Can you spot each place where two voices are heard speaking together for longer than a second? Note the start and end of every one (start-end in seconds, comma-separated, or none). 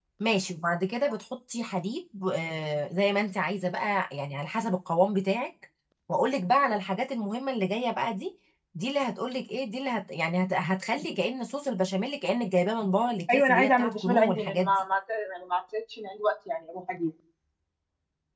13.3-14.7